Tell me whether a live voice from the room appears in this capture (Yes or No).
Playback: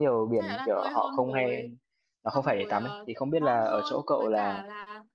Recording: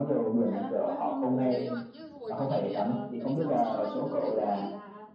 Yes